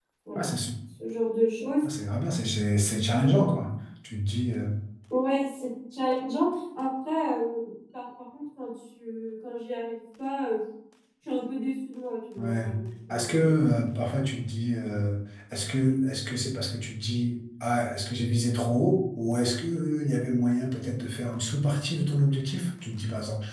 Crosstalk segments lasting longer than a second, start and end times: none

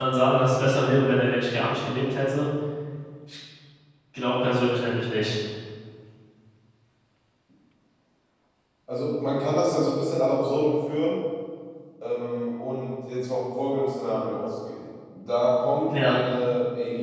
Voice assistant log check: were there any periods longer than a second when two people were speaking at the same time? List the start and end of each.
none

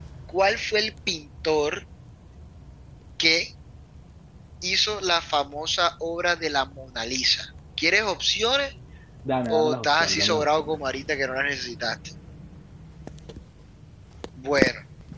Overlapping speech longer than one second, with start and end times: 9.5-10.8

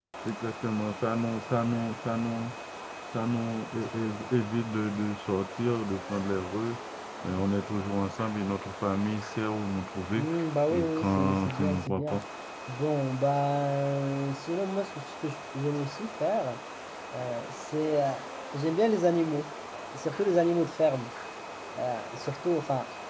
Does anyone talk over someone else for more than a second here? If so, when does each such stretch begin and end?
10.7-12.2

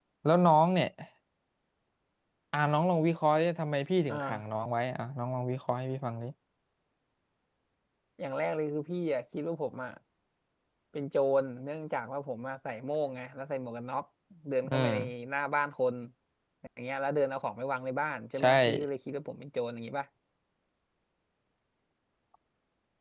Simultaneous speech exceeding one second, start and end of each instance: none

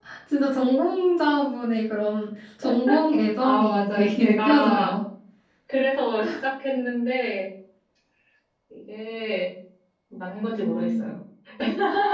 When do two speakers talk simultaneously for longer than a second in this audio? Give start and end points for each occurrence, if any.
3.4-5.0

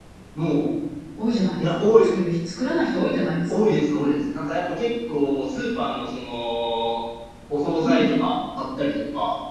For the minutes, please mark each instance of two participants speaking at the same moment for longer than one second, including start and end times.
none

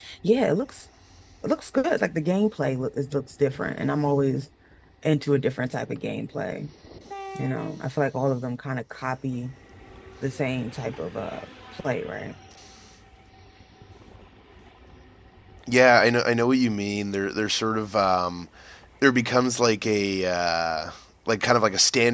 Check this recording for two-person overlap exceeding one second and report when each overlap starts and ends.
none

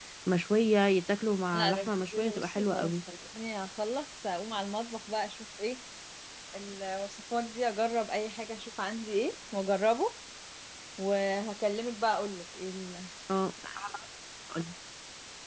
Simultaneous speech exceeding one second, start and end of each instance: 1.5-3.0

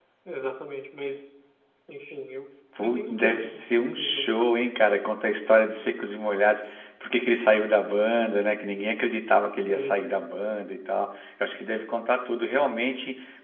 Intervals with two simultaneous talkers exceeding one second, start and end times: 2.8-4.3

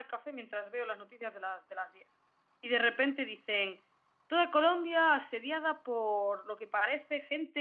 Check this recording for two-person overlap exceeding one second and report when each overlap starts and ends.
none

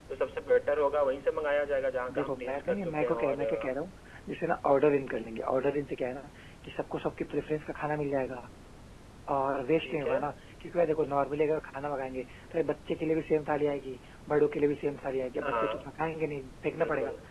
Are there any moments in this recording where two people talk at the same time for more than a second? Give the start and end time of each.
2.1-3.7

